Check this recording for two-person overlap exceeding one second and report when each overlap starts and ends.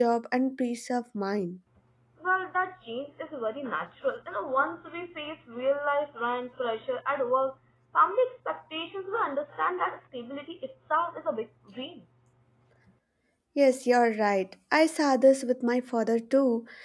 none

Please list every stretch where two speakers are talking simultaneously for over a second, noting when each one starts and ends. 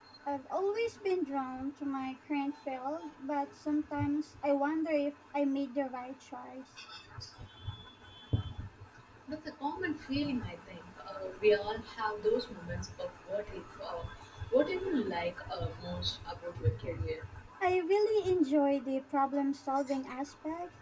none

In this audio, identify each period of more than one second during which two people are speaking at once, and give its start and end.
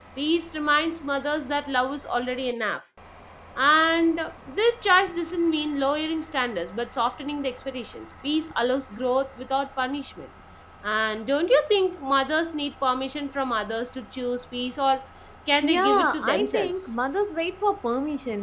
15.6-16.9

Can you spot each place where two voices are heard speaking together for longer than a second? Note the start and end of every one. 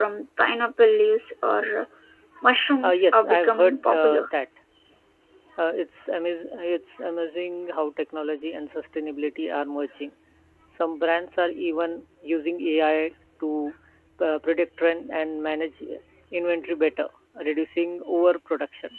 2.8-4.3

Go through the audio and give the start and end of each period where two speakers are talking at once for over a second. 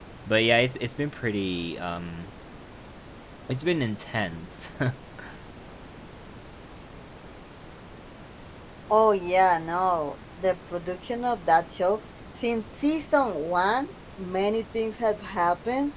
none

